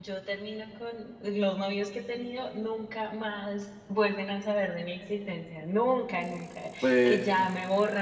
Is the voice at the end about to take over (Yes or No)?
No